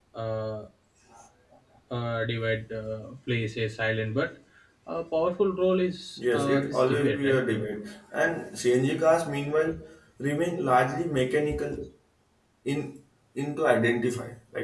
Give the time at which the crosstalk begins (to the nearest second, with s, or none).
6 s